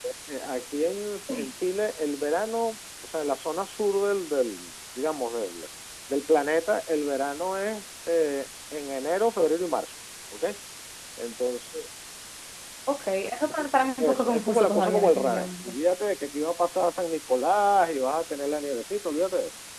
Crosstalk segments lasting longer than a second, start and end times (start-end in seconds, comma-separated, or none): 14.0-15.7